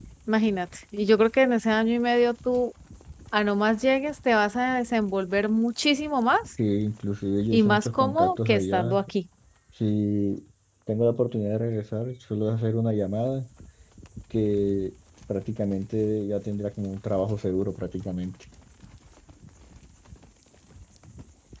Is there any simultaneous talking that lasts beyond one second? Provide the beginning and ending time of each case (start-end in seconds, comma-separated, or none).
7.5-9.0